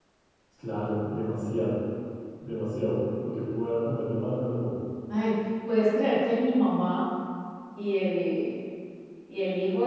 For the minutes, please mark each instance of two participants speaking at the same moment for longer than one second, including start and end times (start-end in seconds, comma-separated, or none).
none